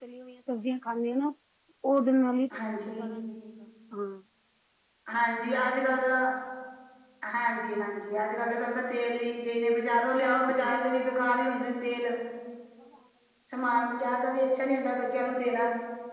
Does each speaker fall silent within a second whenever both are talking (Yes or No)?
Yes